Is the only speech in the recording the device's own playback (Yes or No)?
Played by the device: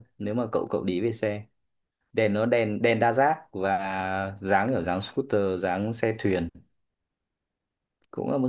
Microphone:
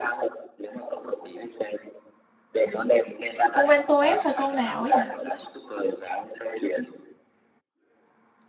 No